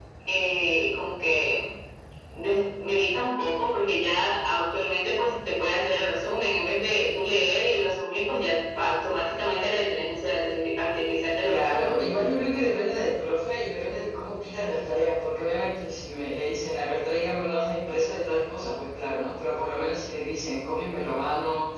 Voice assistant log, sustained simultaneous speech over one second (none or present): none